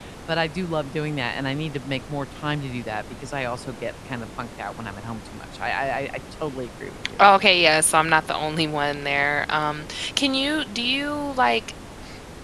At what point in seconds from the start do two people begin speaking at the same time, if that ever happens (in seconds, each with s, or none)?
none